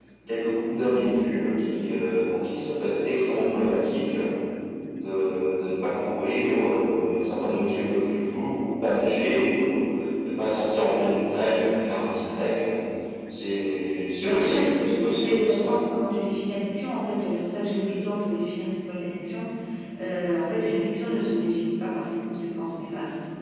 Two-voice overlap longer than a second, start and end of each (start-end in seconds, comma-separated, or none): 14.2-15.8